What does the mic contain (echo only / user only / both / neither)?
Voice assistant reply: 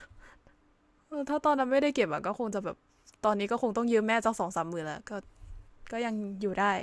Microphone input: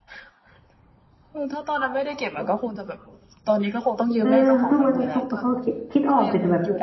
both